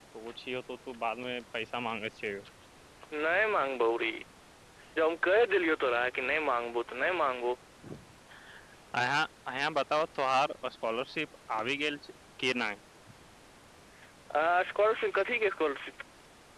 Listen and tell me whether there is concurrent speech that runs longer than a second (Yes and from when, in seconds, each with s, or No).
No